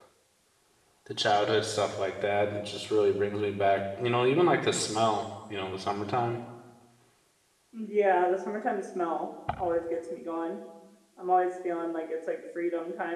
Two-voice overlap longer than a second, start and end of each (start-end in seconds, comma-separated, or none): none